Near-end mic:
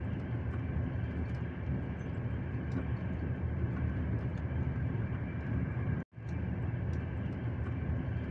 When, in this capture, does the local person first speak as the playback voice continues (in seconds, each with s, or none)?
none